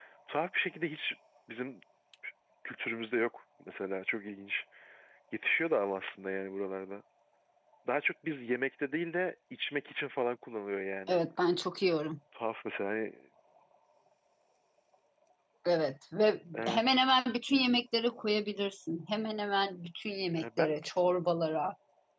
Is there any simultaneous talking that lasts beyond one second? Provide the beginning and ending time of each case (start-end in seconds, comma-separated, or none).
none